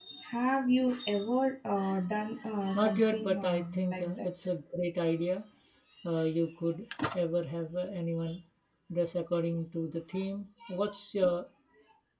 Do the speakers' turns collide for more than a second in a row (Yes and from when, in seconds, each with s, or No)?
Yes, from 2.7 s